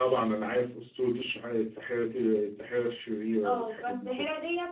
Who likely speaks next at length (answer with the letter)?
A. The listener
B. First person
A